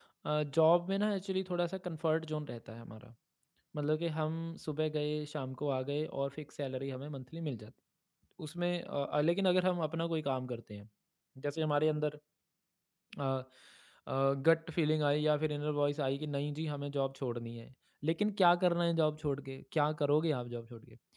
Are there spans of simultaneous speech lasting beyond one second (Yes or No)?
No